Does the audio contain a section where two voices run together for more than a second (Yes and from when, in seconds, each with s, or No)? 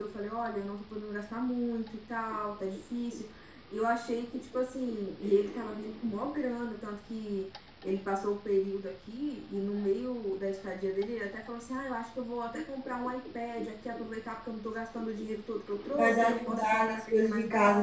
Yes, from 15.9 s